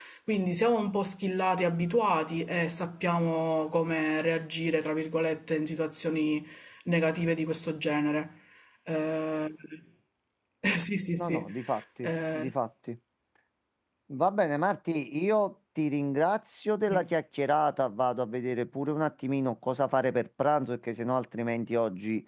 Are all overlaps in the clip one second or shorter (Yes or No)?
Yes